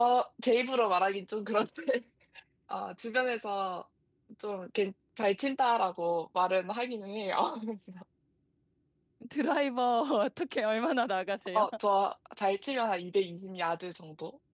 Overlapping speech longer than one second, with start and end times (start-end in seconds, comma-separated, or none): none